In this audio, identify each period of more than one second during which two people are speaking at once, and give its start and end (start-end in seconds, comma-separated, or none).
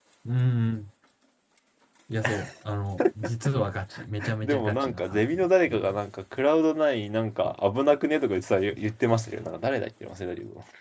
4.4-6.0